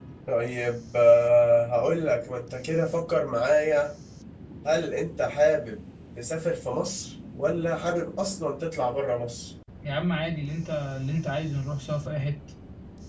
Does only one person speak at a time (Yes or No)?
Yes